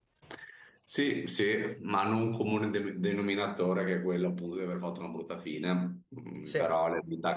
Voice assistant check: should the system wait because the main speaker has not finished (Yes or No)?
Yes